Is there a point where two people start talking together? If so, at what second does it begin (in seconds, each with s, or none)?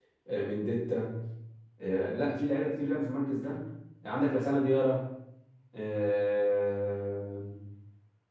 none